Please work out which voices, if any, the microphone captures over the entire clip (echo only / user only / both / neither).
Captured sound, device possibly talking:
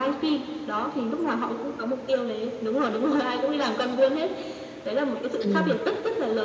both